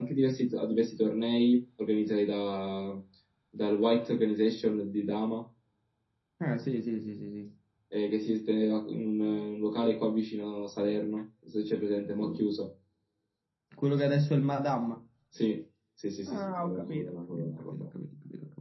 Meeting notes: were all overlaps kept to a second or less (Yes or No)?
No